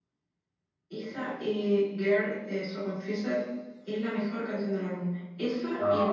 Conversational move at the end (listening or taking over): taking over